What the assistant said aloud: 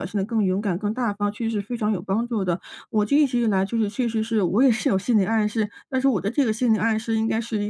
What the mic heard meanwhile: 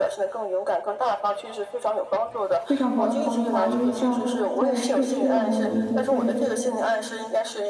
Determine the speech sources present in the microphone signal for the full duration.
both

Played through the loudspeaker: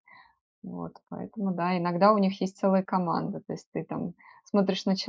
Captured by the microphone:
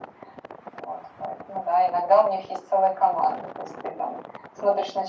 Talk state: echo only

